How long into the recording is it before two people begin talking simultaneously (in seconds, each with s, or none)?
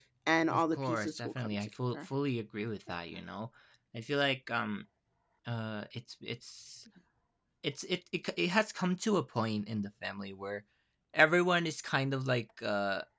0.5 s